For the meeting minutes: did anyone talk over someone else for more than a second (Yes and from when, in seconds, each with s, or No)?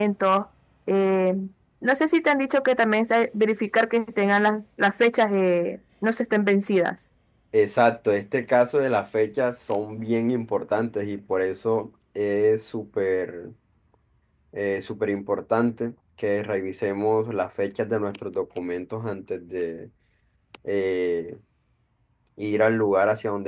No